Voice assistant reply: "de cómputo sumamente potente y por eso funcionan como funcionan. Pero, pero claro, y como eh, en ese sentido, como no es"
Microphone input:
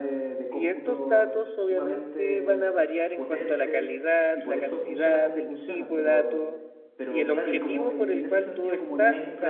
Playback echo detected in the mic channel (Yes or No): Yes